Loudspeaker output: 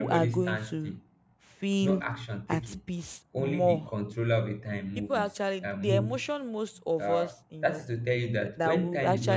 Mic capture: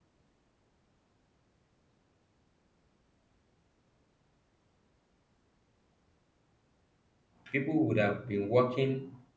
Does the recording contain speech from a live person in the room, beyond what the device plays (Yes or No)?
Yes